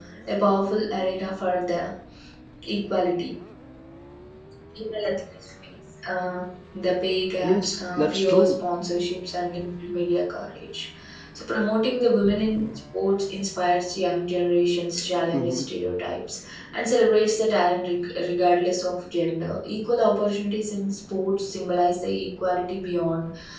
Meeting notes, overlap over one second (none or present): present